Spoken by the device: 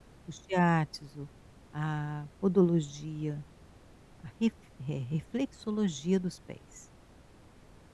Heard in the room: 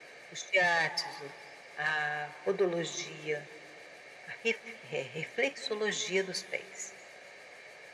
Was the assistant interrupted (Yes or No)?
No